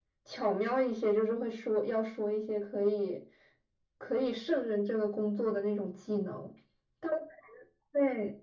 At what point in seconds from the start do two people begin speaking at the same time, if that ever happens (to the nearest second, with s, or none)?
none